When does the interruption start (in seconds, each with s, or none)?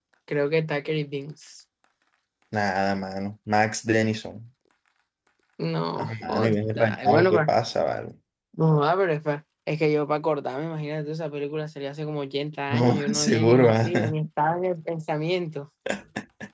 6.0 s